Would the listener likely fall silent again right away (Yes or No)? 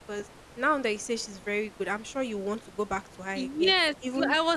No